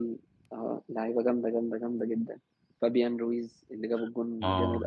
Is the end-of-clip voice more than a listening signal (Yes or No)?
Yes